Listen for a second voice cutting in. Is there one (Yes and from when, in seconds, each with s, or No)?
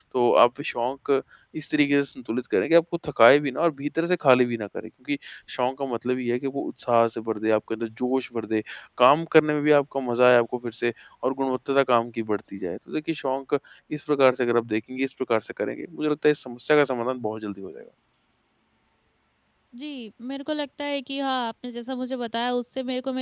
No